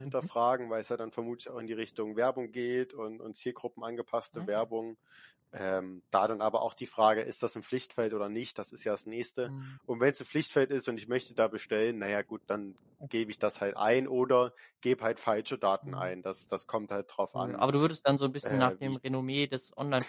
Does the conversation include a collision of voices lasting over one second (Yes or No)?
No